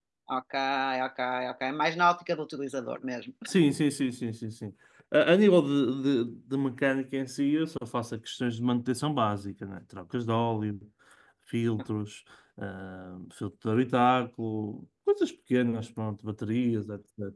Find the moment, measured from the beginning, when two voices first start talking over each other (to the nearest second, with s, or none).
none